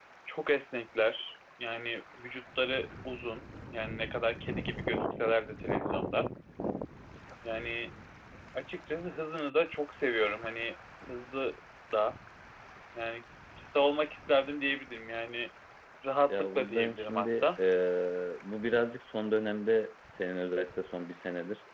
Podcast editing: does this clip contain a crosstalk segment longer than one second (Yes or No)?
Yes